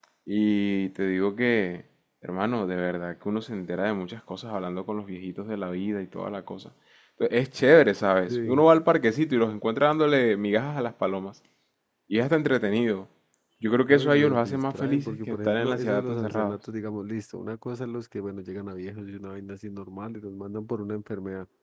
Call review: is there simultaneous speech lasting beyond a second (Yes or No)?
Yes